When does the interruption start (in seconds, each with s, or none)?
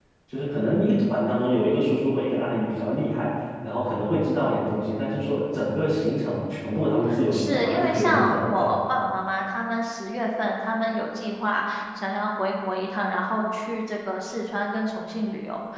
7.1 s